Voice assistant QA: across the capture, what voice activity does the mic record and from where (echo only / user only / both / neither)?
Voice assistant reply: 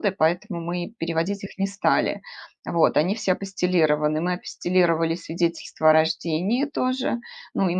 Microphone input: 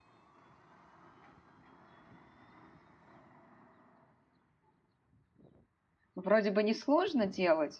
user only